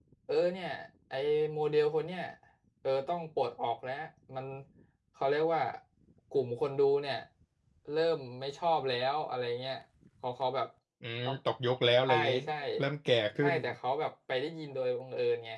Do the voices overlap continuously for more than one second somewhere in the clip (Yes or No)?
No